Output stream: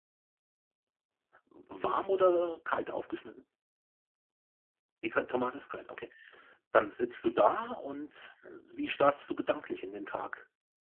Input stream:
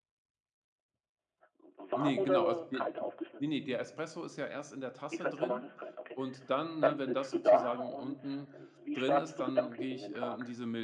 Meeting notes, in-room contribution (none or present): present